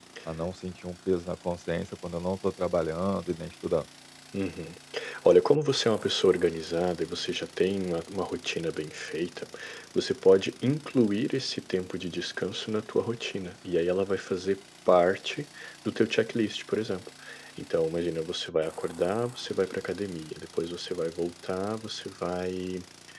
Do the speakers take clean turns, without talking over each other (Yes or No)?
Yes